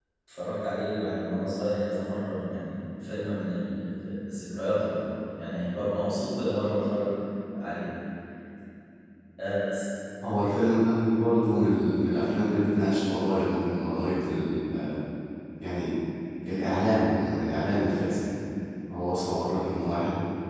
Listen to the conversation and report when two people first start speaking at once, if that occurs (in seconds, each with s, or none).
none